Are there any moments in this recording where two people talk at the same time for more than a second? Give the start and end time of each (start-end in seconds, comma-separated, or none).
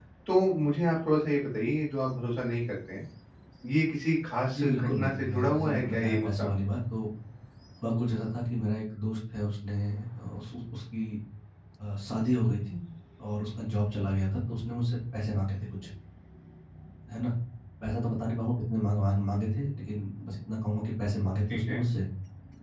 4.5-6.5